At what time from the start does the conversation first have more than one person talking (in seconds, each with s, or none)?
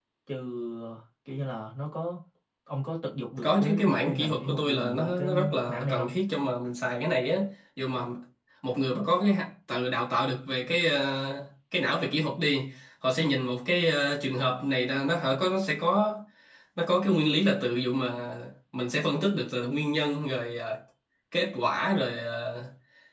3.4 s